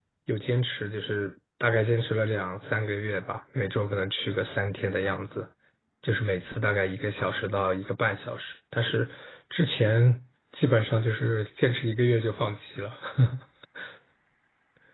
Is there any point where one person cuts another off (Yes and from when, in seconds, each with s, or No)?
No